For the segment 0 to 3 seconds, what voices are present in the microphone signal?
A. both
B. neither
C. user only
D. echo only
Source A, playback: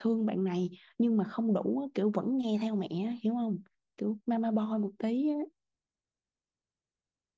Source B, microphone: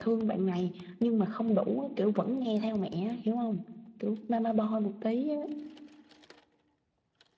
D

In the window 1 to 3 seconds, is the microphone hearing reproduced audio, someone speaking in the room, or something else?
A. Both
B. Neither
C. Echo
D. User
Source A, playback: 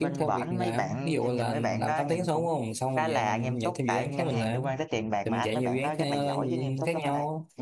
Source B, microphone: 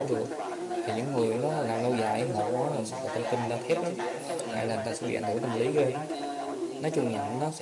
A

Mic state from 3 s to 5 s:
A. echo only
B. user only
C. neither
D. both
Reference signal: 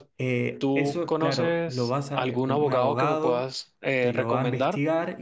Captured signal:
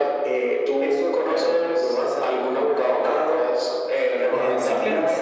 D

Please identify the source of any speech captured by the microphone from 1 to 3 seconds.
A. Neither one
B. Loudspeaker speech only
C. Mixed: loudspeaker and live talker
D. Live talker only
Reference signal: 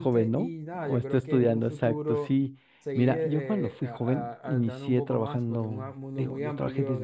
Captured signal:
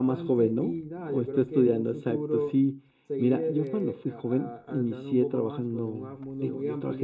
B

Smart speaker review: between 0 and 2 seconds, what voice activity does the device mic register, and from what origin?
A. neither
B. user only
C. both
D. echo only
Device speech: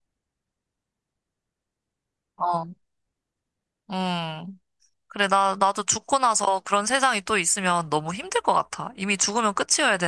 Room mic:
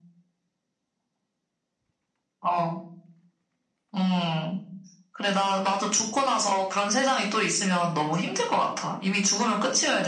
A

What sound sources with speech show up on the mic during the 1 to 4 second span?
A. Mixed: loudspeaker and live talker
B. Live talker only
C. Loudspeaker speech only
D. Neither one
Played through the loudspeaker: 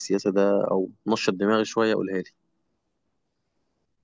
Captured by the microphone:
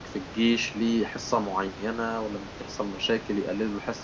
B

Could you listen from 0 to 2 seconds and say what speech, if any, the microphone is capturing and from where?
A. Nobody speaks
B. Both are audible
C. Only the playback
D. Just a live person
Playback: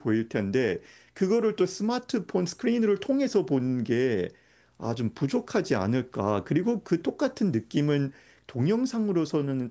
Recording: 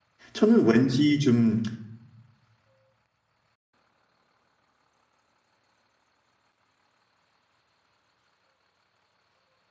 D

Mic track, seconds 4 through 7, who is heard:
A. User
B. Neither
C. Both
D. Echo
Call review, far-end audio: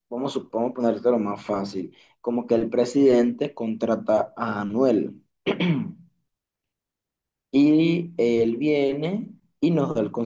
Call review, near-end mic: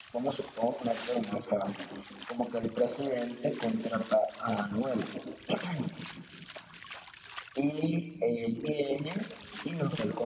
D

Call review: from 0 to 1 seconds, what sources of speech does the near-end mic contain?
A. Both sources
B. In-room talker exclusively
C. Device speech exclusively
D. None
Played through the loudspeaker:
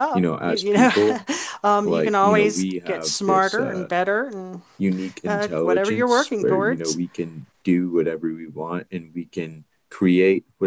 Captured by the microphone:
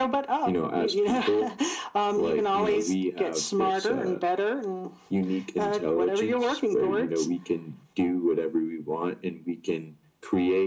C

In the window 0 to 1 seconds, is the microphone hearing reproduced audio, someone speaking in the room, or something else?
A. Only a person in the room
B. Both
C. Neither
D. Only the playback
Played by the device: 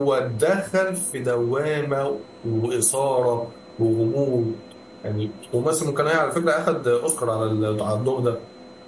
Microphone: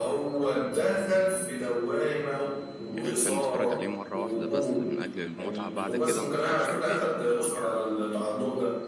D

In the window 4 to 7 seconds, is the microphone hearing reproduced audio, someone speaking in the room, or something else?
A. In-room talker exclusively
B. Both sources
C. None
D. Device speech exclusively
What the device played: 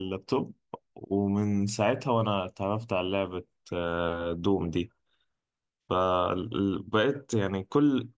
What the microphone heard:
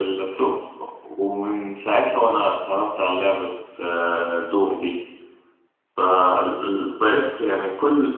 D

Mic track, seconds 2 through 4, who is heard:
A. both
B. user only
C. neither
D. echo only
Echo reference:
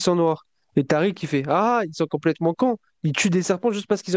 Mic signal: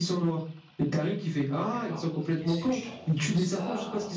A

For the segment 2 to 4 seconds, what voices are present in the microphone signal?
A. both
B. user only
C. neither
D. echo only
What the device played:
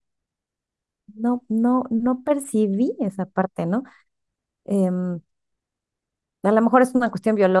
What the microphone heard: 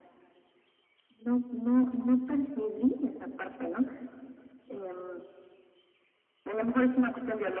D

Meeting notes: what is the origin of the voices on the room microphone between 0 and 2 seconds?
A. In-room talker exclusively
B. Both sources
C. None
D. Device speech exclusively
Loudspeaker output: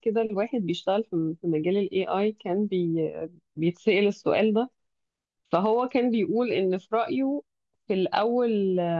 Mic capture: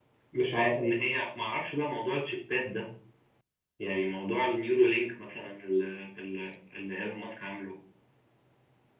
A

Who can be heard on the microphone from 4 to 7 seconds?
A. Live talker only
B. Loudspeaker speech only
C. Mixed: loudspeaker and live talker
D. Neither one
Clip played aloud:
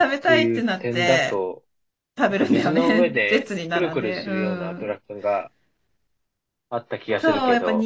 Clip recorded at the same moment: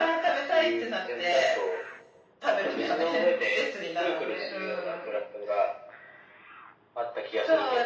B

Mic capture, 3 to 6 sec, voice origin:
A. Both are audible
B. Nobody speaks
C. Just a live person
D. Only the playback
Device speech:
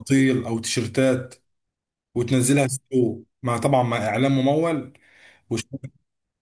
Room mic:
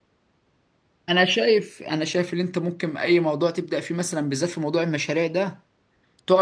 C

